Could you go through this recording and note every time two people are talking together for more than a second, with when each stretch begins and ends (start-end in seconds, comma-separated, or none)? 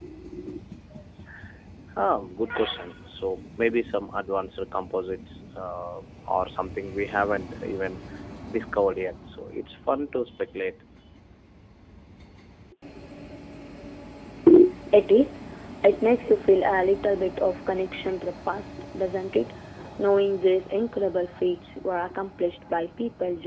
none